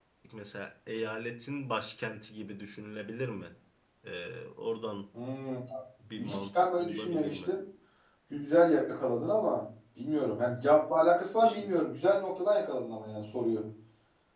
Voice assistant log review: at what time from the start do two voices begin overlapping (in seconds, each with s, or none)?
6.2 s